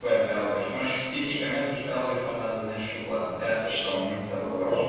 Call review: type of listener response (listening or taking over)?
taking over